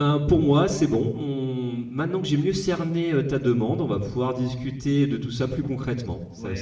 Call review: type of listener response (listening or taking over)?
taking over